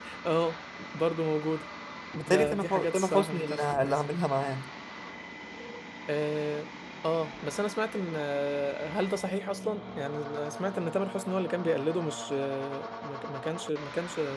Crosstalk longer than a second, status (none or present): present